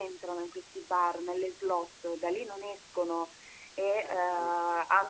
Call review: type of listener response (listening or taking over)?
listening